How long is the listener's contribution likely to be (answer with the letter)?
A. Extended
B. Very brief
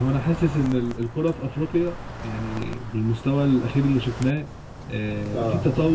B